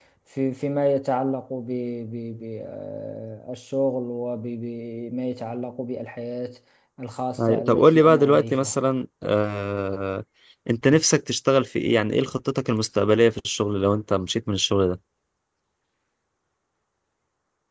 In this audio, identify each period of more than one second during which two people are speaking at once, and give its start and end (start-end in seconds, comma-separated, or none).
7.4-8.7